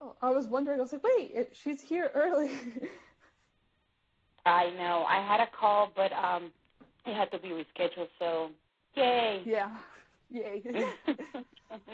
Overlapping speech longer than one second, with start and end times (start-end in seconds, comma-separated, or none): none